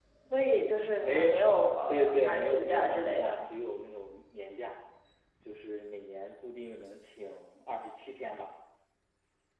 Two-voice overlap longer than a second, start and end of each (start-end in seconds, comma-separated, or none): 1.0-3.4